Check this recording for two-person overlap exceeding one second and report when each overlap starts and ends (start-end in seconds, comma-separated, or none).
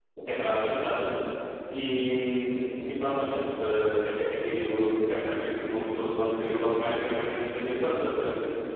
none